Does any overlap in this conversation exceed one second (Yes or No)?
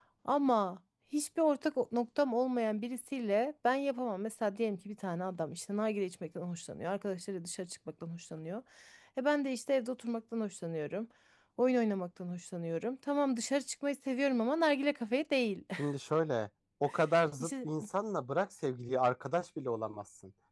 No